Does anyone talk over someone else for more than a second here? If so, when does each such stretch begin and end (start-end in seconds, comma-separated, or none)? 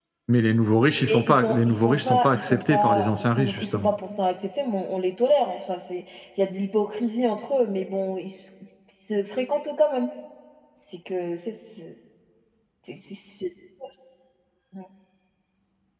1.0-3.9